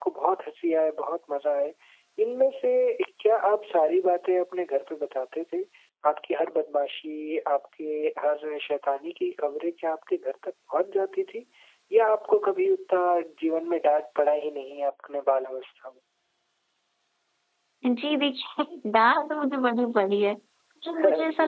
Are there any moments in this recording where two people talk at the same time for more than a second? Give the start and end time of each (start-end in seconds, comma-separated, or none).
none